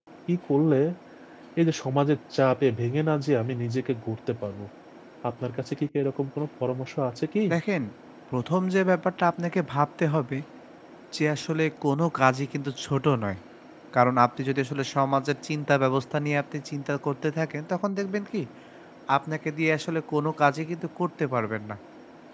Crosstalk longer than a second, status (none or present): none